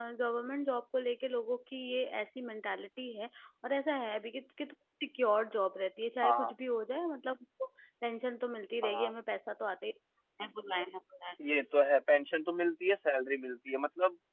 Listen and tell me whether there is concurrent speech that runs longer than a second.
No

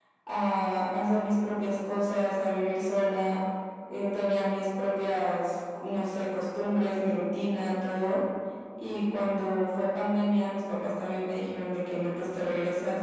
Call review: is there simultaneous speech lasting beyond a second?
No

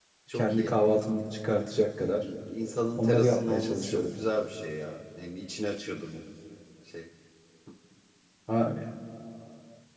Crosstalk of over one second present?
Yes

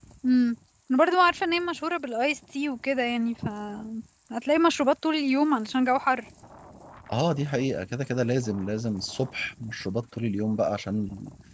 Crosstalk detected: No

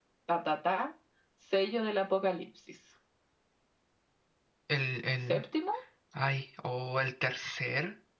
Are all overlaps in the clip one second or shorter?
Yes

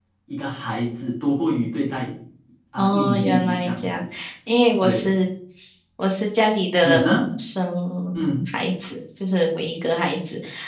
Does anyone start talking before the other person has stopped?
Yes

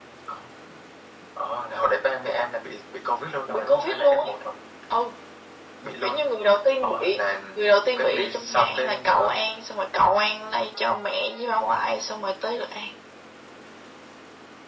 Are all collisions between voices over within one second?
No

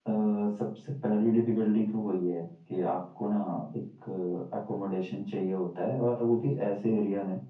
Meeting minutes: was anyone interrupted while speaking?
No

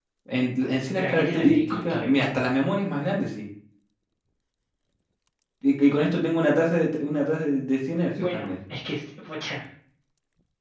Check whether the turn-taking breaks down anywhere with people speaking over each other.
Yes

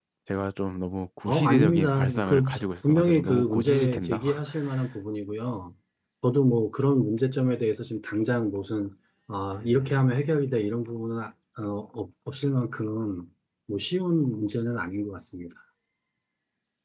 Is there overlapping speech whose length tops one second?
Yes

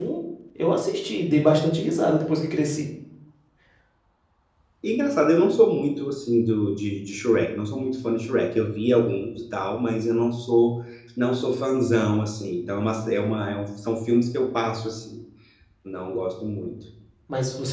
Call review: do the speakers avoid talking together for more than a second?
Yes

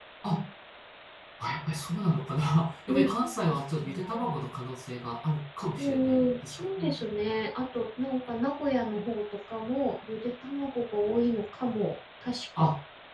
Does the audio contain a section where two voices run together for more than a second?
Yes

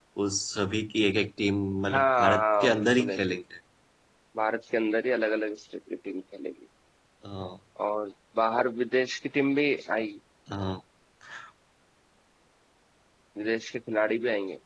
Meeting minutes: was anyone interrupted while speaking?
Yes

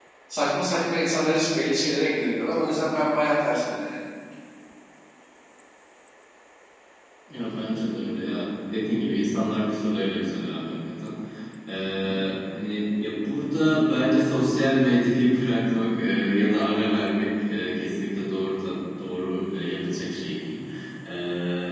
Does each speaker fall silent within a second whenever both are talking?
Yes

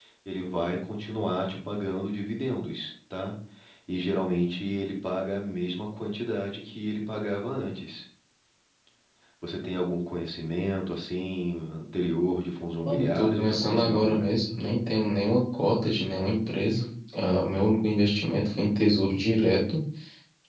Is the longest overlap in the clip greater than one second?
Yes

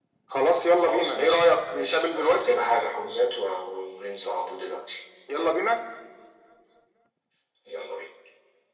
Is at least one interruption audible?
Yes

